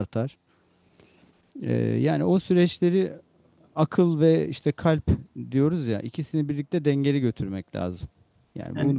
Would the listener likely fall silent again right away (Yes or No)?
Yes